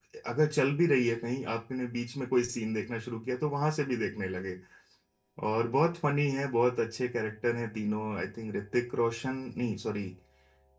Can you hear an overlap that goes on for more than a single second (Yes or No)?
No